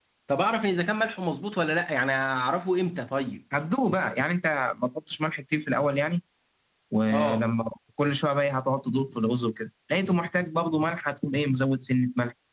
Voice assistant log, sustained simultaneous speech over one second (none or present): none